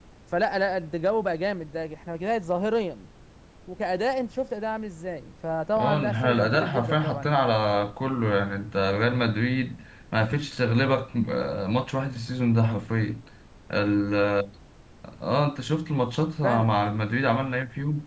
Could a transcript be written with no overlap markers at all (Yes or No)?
No